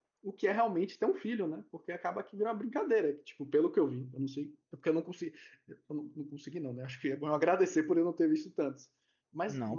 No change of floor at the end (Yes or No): No